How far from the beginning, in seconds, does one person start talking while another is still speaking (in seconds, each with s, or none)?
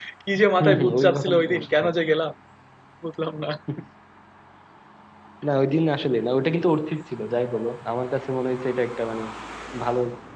0.6 s